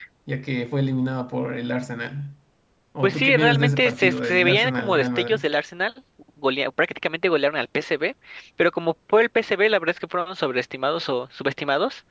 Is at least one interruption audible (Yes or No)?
Yes